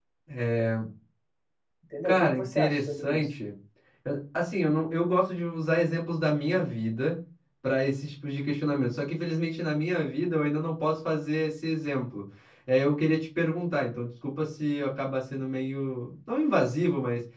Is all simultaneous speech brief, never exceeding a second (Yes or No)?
No